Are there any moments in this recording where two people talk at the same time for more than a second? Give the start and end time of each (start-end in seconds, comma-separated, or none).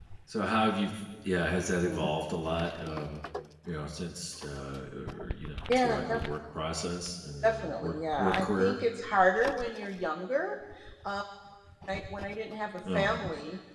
7.4-8.8